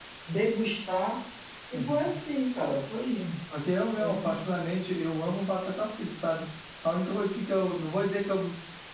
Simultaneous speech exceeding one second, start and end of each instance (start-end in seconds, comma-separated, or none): none